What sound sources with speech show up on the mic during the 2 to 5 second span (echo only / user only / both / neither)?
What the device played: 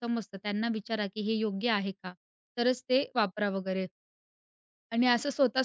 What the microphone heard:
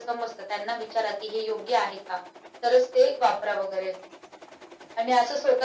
echo only